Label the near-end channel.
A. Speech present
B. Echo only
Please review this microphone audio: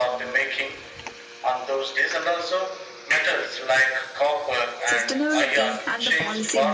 A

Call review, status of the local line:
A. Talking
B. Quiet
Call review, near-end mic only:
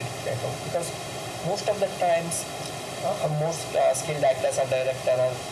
B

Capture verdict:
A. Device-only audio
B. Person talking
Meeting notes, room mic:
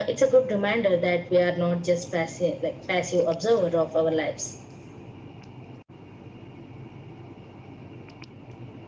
A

